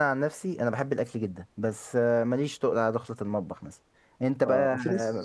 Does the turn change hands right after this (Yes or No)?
Yes